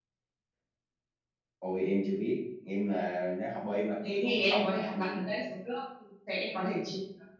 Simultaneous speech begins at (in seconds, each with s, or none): 4.0 s